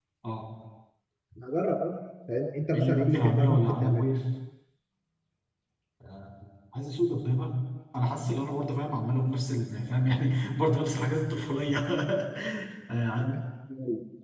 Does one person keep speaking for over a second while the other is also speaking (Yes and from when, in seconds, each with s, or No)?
Yes, from 2.7 s